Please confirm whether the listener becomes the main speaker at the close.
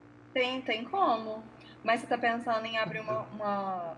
No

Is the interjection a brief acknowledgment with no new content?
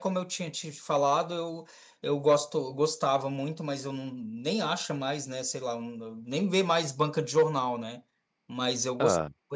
Yes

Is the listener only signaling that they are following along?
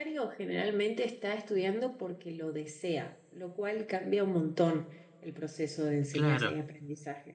Yes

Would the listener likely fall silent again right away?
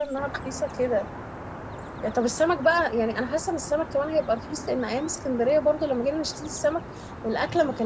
Yes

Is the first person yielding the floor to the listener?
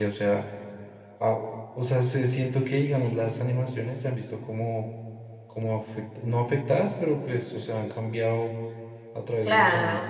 Yes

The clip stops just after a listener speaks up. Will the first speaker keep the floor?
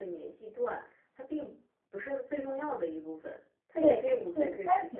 No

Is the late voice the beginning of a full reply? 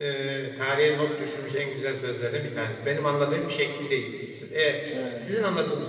No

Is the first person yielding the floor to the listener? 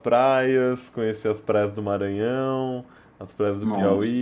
No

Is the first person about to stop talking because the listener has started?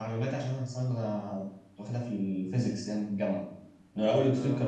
No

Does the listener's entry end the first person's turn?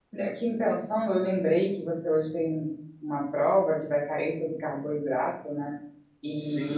Yes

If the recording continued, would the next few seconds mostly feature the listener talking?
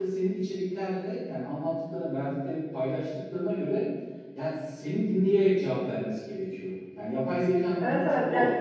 Yes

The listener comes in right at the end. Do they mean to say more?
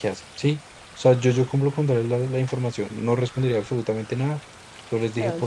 No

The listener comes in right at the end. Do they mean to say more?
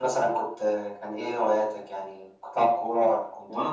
Yes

